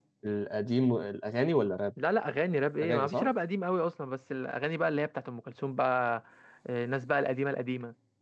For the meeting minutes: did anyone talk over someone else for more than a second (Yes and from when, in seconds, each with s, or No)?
No